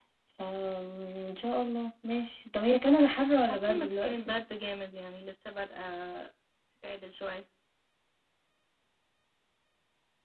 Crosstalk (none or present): present